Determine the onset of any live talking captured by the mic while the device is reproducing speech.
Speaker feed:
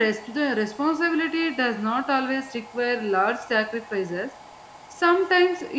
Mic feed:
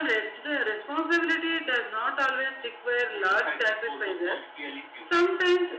3.1 s

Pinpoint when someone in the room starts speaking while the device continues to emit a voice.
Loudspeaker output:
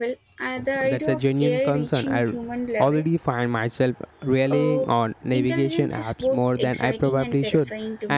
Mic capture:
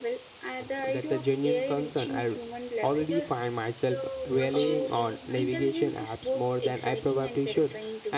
3.0 s

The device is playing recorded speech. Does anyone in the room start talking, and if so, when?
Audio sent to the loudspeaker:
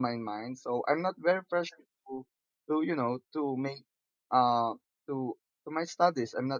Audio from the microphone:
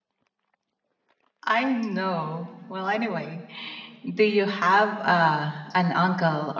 1.5 s

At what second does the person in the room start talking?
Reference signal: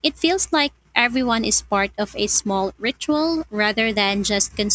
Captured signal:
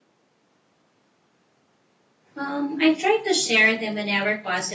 2.3 s

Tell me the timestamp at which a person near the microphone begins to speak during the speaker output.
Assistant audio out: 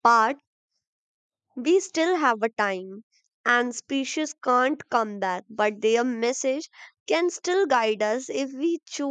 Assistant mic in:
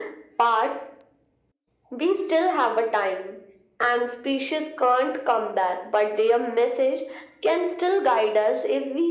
none

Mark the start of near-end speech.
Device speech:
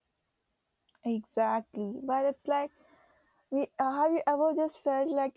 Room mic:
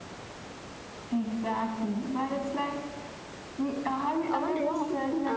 4.2 s

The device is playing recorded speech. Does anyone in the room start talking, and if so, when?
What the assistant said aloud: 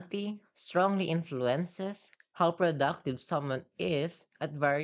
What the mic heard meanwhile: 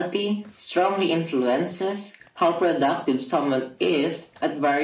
none

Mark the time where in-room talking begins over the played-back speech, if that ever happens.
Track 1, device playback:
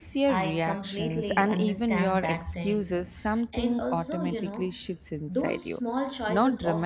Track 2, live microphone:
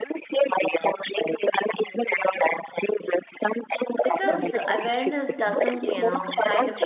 4.0 s

